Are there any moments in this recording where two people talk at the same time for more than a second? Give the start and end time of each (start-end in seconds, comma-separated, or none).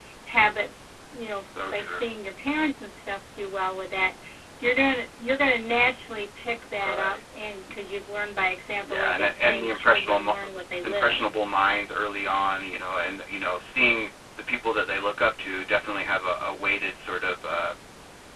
8.8-10.3